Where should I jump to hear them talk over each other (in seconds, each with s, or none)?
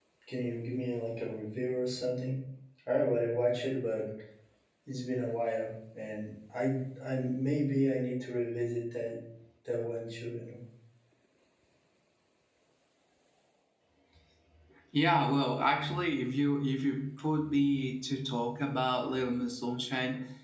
none